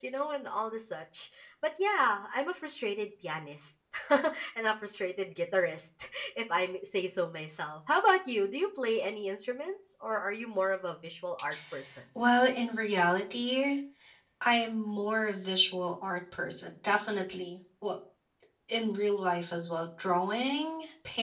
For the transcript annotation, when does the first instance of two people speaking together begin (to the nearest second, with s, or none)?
none